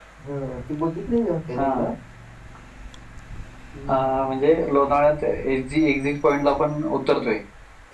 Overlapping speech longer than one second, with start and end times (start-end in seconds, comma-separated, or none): none